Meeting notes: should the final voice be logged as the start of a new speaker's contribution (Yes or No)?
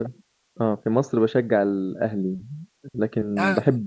No